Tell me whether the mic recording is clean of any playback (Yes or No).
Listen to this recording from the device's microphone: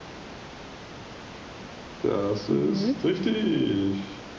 No